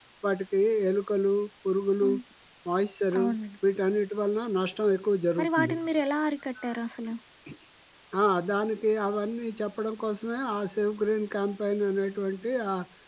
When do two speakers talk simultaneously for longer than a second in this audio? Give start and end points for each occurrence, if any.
none

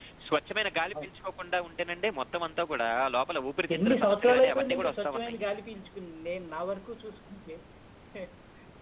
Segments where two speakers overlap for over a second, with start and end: 3.8-5.4

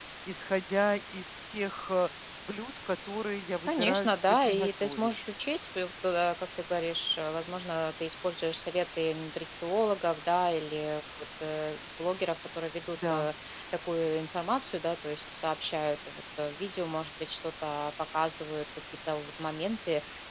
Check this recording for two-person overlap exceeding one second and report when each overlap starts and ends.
3.7-5.1

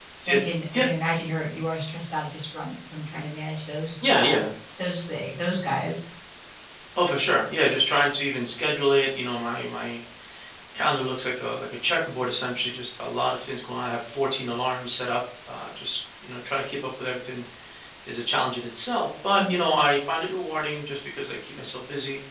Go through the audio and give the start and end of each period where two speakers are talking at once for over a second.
none

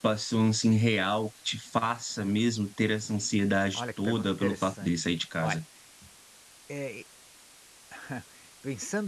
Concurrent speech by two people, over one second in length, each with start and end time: 3.7-5.6

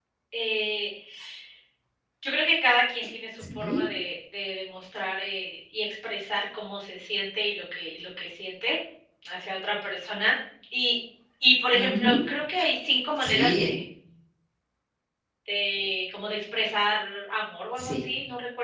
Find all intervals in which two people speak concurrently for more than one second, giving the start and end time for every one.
none

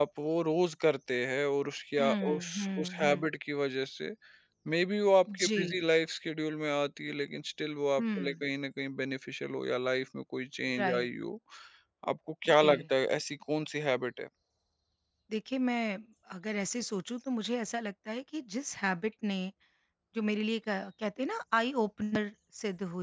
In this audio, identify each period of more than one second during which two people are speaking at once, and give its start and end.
2.0-3.3

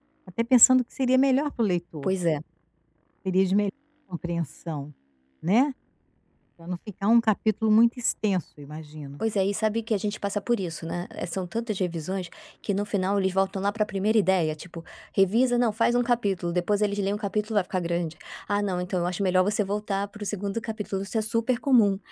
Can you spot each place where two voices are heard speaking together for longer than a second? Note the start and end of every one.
none

